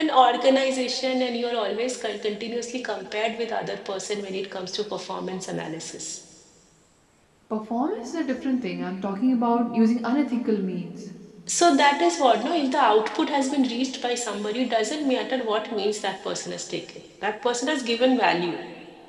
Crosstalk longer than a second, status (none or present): none